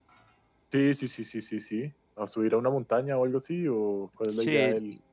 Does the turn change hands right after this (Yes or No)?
Yes